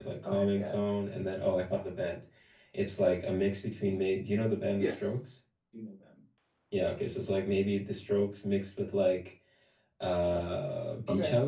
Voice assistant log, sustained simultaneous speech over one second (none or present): none